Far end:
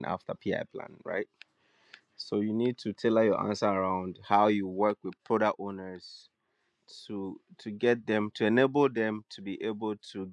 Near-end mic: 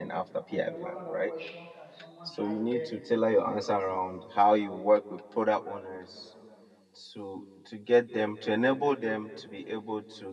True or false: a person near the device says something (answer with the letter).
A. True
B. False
A